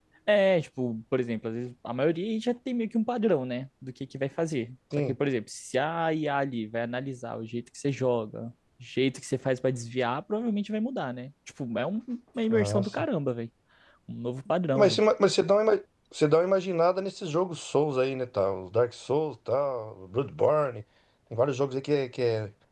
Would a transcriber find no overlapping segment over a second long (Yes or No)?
Yes